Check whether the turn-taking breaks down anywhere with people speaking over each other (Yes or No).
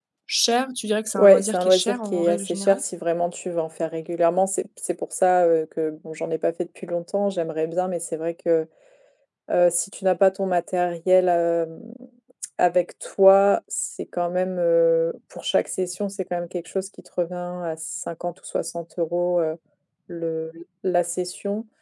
Yes